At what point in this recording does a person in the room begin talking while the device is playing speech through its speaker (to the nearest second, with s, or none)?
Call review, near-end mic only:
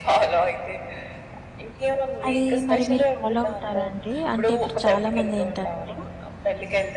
2 s